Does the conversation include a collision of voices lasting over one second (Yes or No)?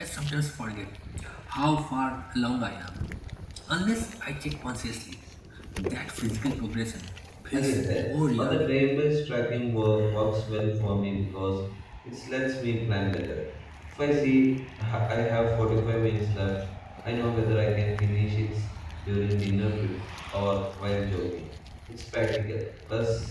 Yes